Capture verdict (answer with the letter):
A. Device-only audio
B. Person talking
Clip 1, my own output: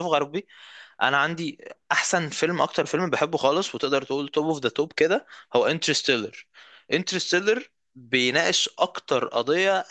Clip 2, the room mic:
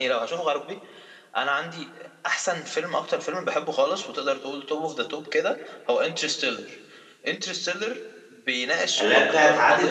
B